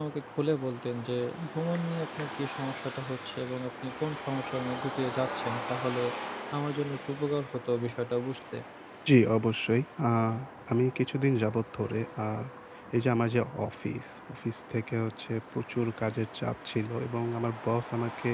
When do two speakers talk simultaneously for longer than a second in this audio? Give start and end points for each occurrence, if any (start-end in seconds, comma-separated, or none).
none